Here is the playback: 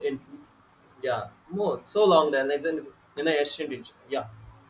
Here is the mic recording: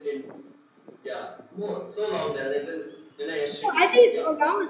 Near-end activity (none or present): present